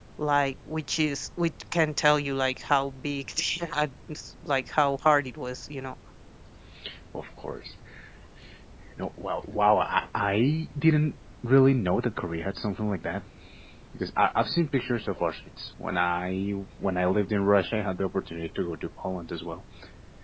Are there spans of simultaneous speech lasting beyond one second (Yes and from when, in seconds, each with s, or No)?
No